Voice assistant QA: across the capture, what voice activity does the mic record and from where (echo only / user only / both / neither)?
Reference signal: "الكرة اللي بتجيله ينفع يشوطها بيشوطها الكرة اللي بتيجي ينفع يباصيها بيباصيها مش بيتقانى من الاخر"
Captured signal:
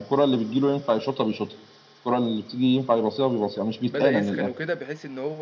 both